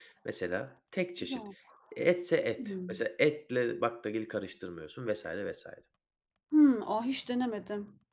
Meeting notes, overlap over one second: none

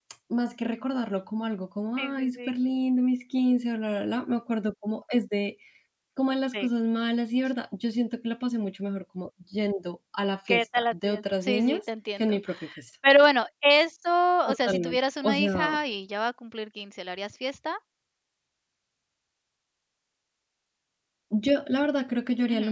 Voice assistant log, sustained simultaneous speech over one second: present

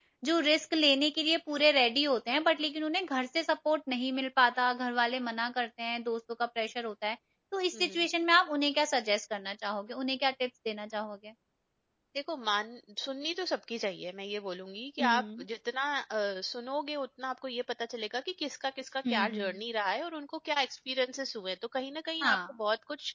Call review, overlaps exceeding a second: none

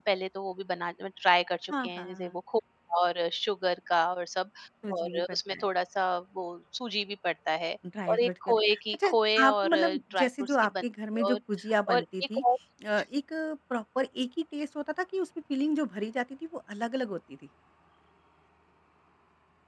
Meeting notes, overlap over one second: present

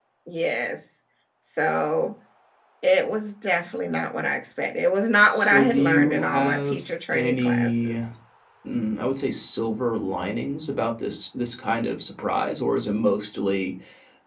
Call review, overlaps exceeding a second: present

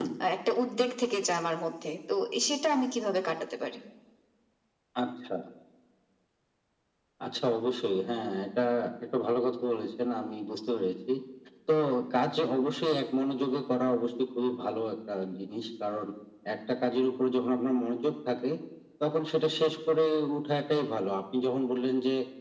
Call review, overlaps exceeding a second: none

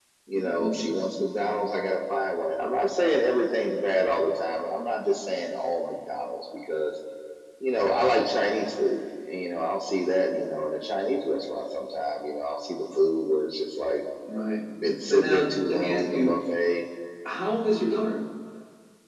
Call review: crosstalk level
present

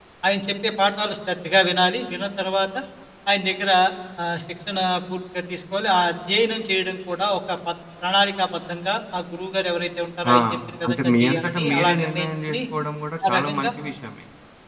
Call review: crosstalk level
present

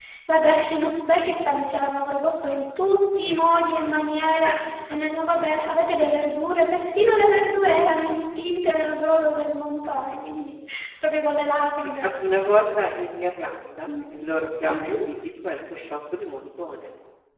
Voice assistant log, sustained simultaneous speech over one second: none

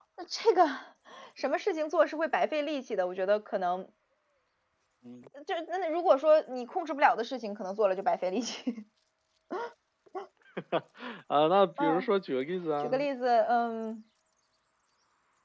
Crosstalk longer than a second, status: none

